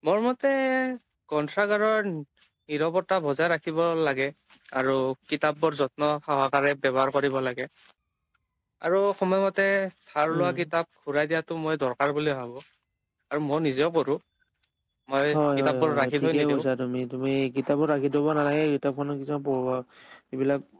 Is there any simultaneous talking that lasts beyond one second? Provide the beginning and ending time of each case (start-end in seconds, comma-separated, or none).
15.4-16.6